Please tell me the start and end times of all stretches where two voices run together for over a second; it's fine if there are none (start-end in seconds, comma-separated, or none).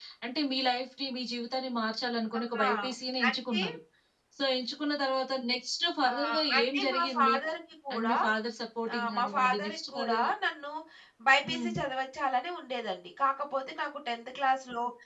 6.1-7.3, 8.9-10.2